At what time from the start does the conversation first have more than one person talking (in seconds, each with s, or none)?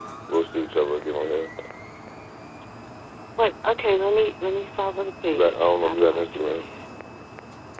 5.3 s